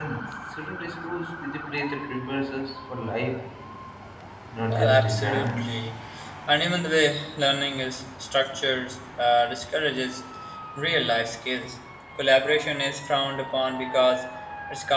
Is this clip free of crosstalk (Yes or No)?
No